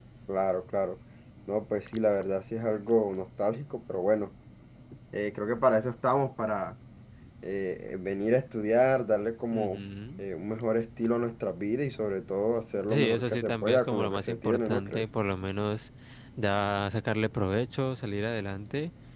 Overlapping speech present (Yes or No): Yes